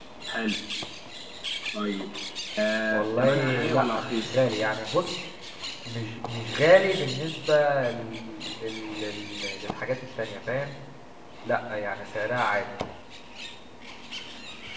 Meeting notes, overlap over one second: present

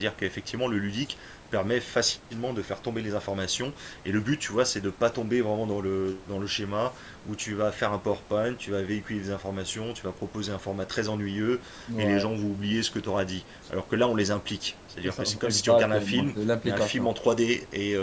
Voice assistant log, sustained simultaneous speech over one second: present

